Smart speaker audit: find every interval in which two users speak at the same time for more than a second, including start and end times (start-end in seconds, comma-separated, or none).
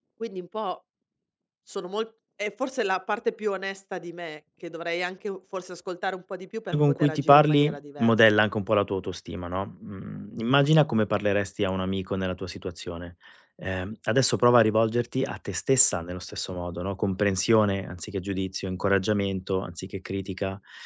6.8-8.2